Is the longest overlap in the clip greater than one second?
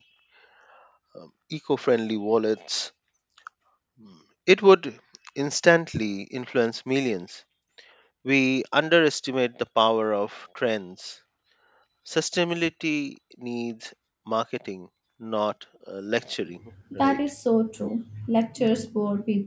No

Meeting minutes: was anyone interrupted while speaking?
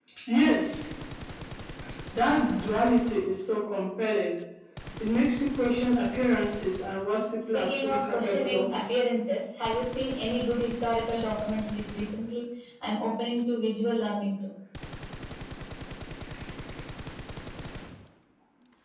Yes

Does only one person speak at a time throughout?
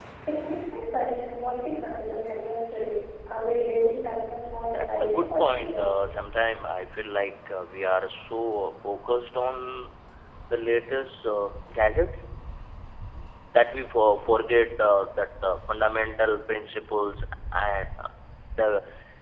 No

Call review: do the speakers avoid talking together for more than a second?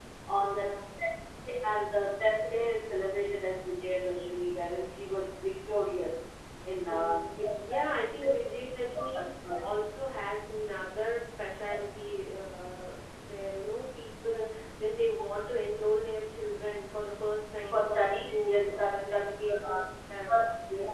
No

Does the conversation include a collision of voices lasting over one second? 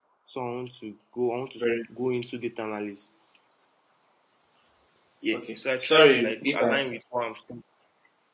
Yes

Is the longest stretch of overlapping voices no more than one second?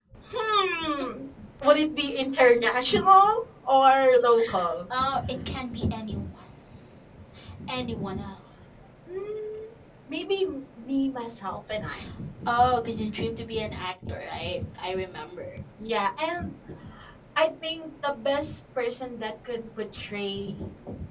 Yes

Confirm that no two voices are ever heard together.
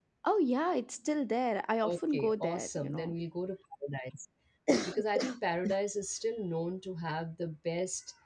No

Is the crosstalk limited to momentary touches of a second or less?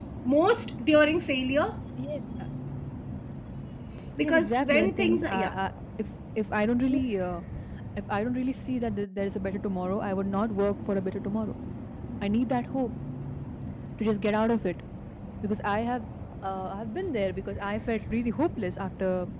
No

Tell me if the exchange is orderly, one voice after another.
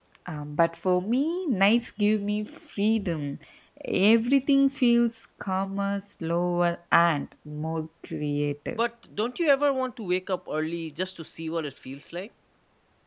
Yes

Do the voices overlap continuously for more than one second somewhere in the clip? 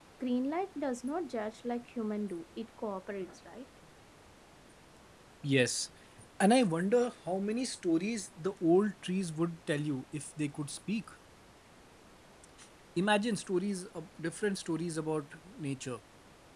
No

